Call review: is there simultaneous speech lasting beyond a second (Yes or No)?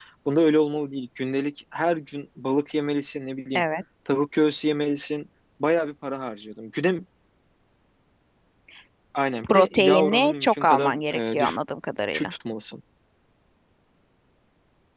Yes